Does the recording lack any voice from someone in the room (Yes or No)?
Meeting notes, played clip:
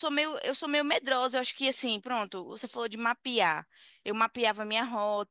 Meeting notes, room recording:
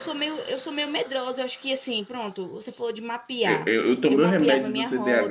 No